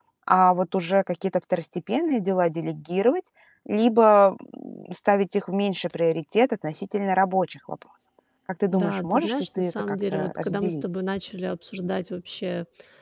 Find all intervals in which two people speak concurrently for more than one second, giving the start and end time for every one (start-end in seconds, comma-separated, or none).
8.7-10.8